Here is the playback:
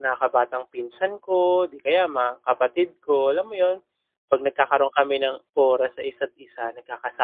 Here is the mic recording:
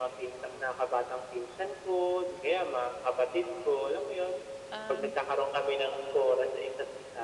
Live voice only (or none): Um.